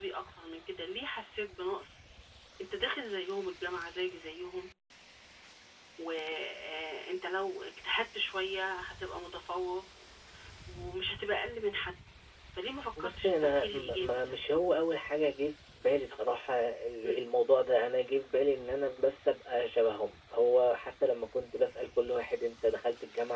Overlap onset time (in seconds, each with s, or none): 13.0 s